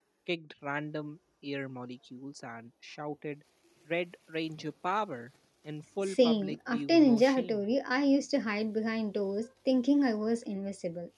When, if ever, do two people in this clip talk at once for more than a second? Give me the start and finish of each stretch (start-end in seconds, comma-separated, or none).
6.0-7.7